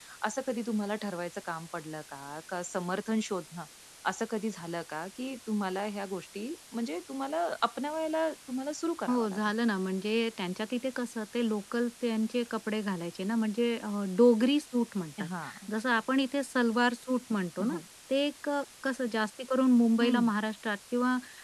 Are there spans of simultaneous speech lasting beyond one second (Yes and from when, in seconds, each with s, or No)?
No